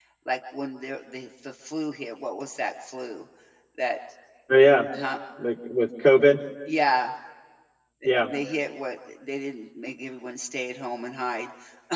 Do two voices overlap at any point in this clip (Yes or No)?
No